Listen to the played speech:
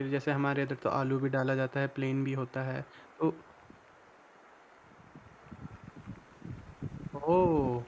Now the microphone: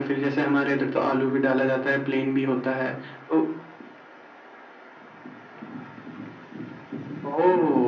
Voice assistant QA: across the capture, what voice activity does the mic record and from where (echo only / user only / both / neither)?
echo only